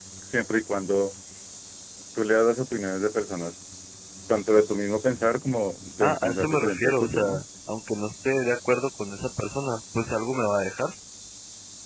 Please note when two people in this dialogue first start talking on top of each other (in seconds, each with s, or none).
6.0 s